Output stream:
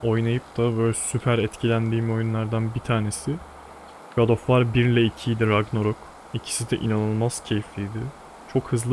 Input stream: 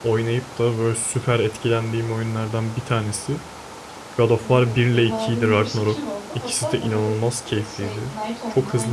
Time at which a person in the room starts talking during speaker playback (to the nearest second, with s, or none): 4 s